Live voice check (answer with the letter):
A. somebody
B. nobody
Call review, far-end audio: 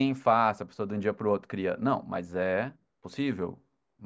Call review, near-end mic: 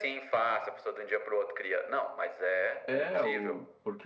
A